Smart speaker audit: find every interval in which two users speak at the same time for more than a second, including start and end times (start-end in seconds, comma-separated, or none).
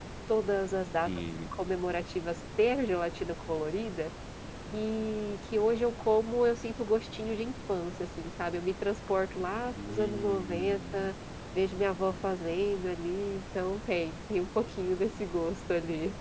9.9-11.1